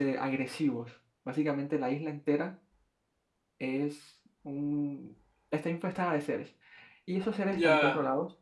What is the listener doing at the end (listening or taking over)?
listening